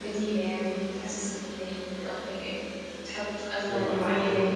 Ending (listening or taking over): listening